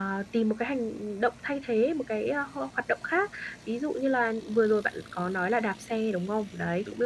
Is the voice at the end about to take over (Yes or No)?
No